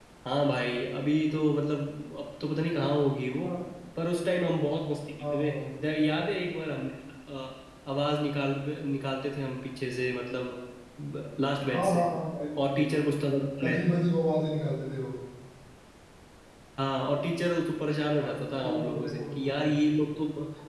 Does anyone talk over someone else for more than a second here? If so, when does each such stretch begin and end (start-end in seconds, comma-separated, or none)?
18.2-19.7